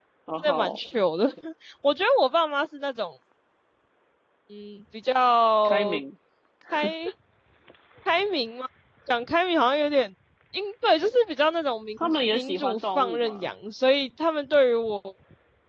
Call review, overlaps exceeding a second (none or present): present